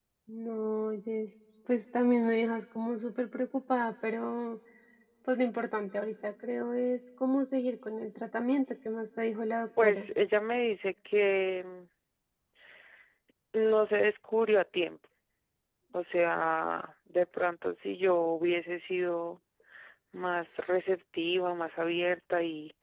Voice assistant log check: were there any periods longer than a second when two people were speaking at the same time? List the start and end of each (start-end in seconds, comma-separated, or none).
none